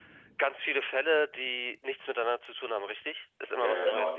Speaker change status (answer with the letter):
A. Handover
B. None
A